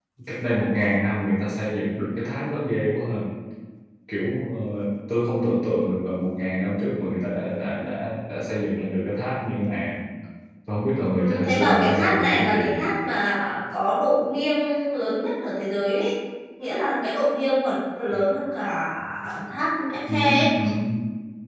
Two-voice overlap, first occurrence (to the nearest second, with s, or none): 11 s